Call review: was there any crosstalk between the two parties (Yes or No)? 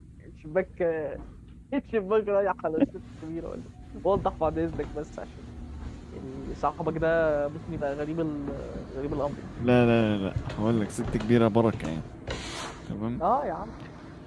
No